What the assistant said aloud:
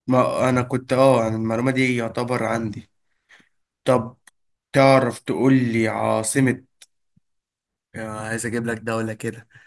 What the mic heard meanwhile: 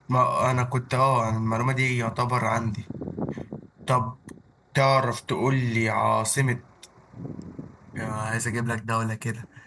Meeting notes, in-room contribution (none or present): none